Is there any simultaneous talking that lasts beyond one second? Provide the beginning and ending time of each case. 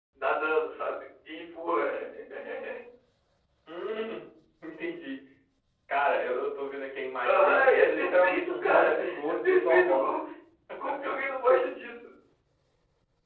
7.2-10.1

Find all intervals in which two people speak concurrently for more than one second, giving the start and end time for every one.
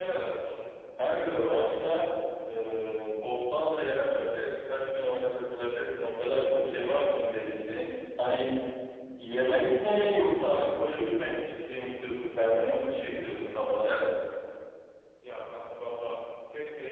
none

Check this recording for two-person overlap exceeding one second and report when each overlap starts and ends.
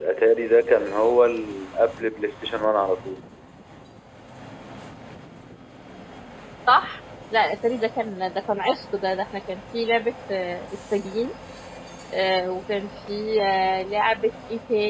none

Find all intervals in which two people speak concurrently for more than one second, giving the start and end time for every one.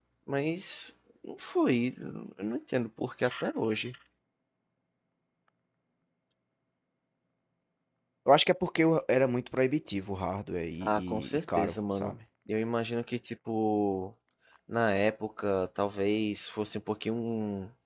10.8-12.1

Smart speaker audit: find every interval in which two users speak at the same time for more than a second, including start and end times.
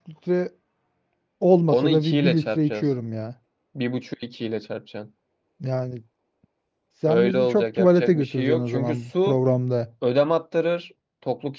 1.7-2.9, 7.1-9.4

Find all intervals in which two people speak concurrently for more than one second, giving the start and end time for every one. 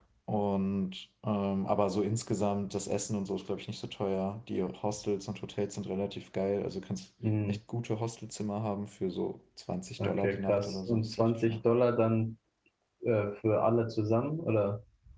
10.0-11.6

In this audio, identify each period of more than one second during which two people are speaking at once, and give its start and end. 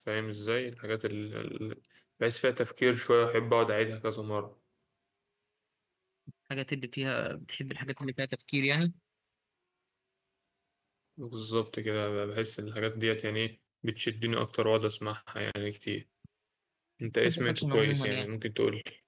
17.0-18.3

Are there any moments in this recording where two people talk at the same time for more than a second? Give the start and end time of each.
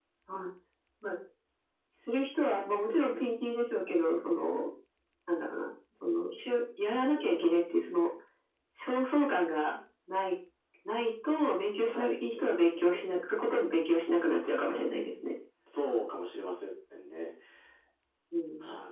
none

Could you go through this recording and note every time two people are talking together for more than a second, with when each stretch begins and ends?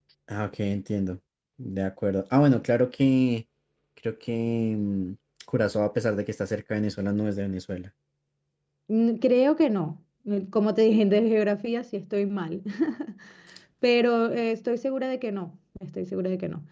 none

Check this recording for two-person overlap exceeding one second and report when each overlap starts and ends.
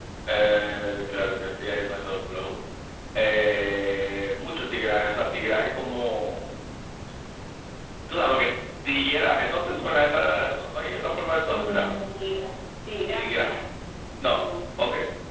none

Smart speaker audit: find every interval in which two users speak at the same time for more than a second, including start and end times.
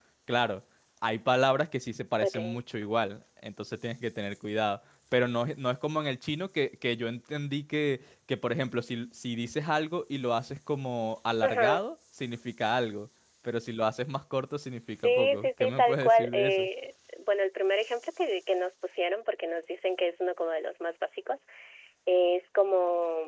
15.0-16.7

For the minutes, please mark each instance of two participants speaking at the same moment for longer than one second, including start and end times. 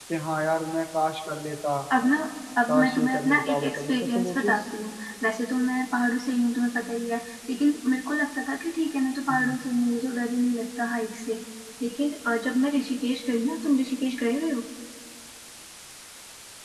2.7-4.6

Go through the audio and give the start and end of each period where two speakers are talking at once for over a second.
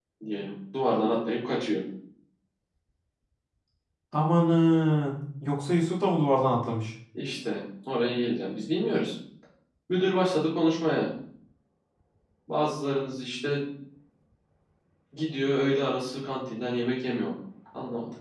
none

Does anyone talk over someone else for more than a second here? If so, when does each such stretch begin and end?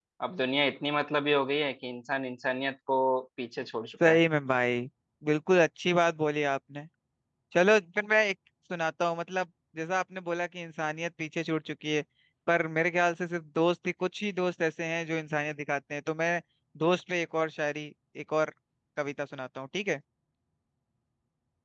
none

